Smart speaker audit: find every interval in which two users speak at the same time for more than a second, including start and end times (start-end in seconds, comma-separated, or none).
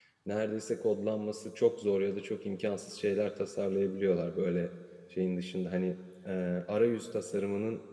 none